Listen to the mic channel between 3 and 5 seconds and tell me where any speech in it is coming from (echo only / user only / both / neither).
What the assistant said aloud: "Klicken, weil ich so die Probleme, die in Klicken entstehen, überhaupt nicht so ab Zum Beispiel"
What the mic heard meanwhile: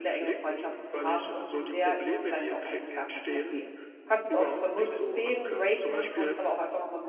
both